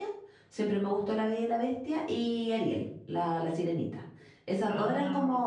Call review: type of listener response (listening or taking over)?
listening